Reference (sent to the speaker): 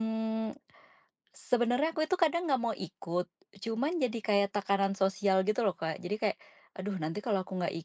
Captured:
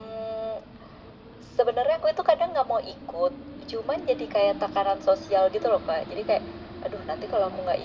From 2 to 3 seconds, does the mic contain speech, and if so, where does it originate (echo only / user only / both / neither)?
echo only